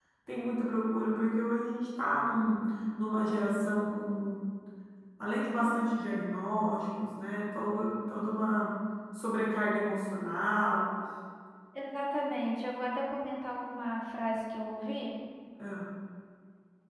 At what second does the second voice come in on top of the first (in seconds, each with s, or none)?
none